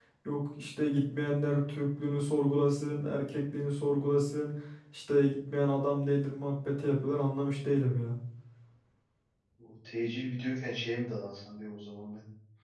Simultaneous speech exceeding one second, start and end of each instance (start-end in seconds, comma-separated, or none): none